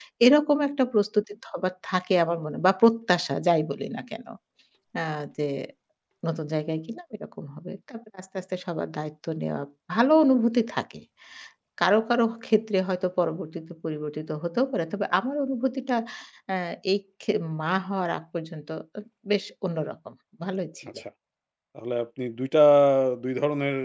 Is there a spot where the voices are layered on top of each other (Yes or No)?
No